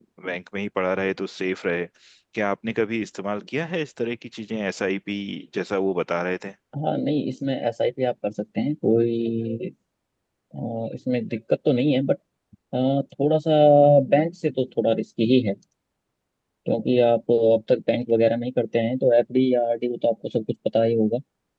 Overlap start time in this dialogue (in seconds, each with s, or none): none